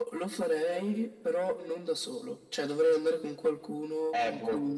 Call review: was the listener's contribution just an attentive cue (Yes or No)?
No